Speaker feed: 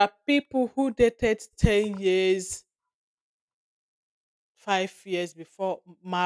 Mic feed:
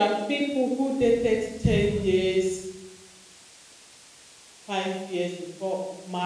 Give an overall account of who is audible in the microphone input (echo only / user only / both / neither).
echo only